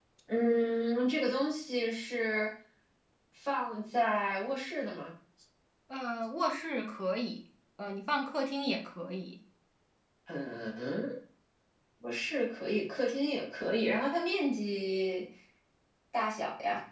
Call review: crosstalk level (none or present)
none